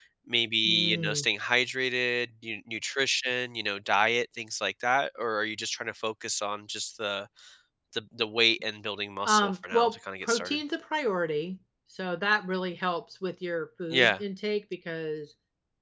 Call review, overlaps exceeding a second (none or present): present